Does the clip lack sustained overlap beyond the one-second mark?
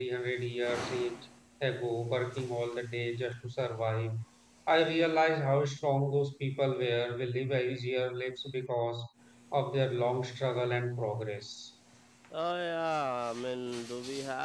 Yes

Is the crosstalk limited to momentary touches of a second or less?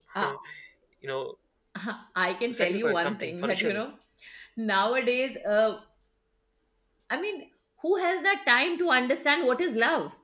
No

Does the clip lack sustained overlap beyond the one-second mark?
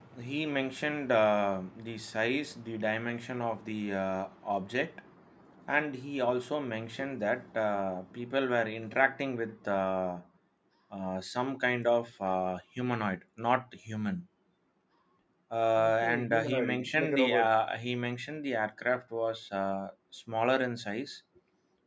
No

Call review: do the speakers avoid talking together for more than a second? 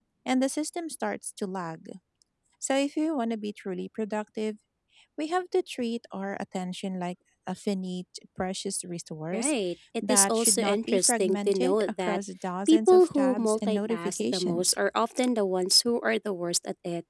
No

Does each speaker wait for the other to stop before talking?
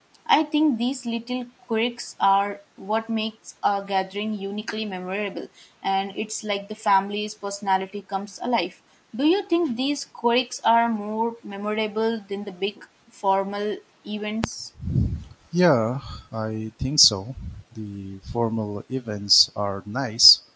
Yes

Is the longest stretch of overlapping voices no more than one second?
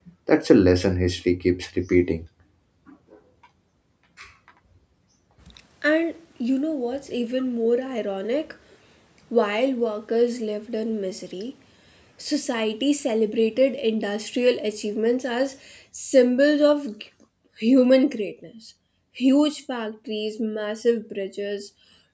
Yes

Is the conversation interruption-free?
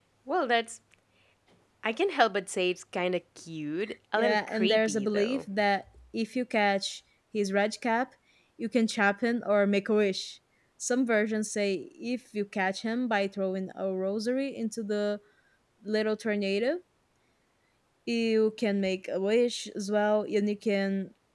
No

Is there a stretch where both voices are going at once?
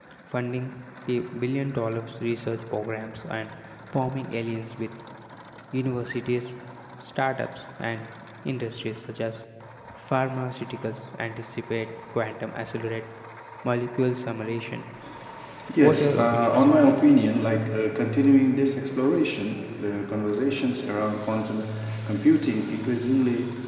Yes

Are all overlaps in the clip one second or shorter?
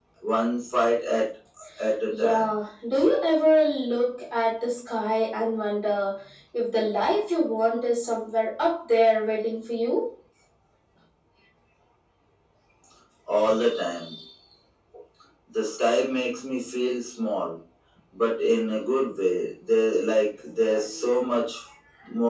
Yes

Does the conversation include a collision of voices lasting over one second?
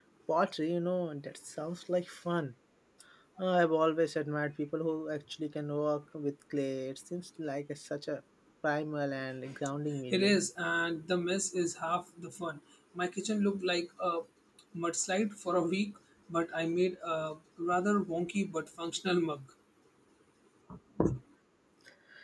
No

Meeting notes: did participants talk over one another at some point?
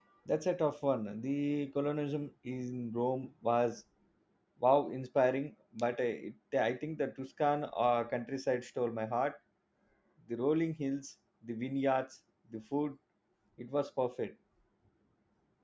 No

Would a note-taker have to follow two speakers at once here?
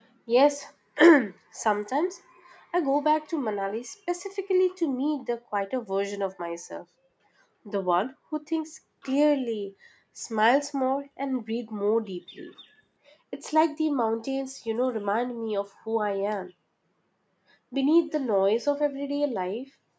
No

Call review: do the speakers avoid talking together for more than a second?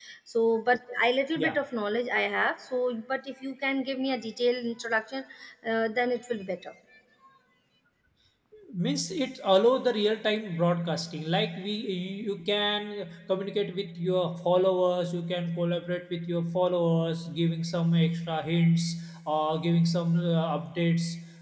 Yes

